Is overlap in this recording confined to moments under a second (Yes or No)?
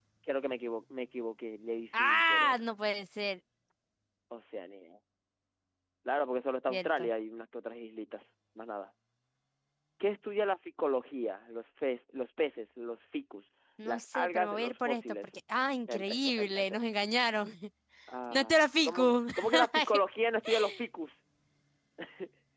No